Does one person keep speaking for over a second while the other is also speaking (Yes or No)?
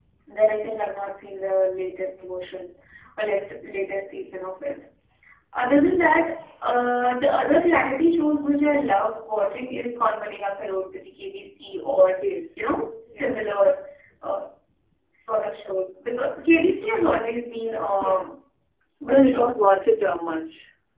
No